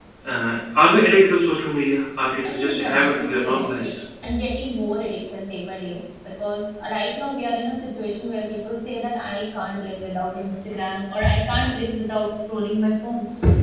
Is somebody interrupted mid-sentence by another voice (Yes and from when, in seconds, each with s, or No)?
Yes, from 2.4 s